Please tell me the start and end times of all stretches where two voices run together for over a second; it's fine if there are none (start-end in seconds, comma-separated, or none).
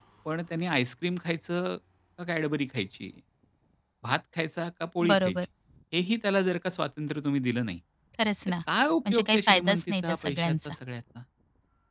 9.1-10.7